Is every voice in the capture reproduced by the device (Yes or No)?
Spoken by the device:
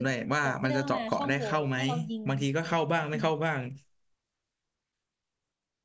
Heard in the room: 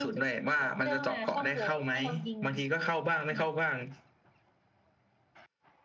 Yes